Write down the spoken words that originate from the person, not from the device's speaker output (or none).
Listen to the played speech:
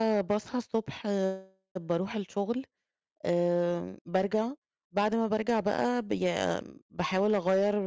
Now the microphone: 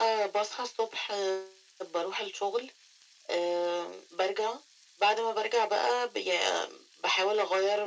none